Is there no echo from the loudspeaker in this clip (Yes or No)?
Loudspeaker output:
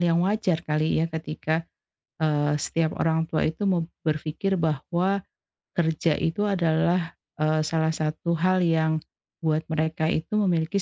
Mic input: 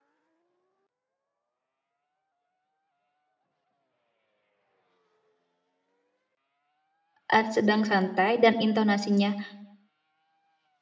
Yes